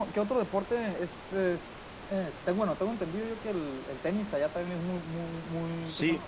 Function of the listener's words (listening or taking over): taking over